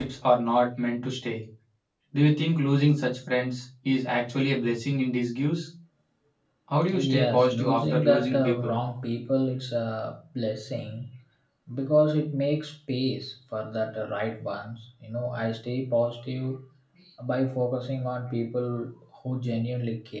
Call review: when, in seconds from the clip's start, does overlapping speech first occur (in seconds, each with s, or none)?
6.9 s